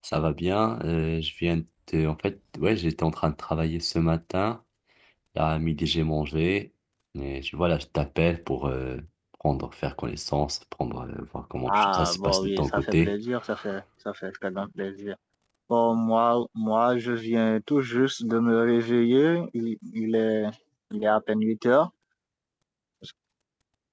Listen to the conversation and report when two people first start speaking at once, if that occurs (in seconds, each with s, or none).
11.7 s